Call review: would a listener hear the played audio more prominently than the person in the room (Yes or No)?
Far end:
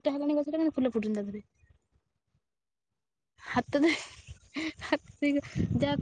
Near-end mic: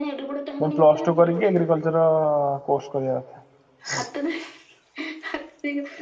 No